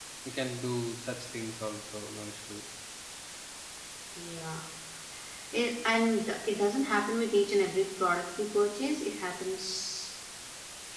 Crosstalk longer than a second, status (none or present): none